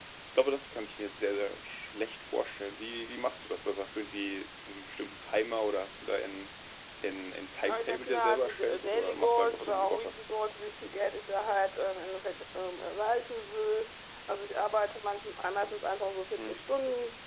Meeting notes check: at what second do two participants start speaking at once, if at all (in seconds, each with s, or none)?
7.6 s